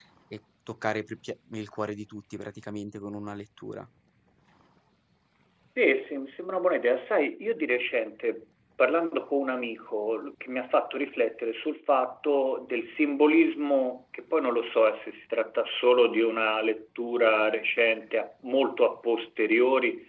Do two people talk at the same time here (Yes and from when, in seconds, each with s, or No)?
No